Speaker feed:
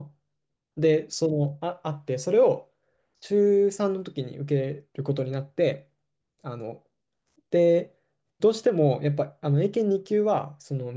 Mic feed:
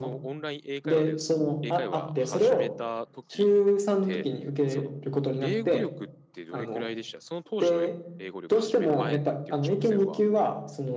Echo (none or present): present